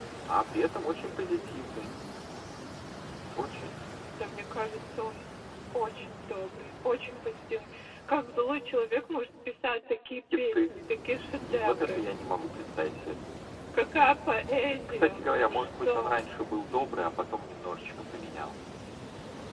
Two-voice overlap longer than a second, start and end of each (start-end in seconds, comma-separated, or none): 14.9-16.2